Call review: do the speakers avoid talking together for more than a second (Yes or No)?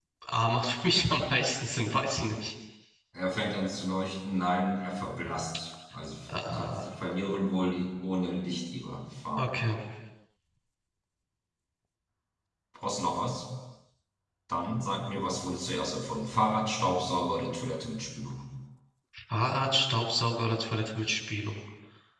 Yes